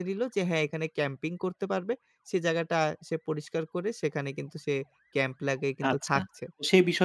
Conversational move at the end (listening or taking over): taking over